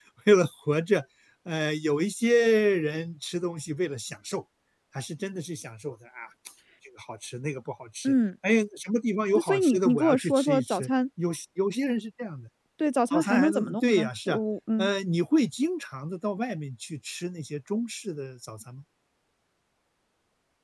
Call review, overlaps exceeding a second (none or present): present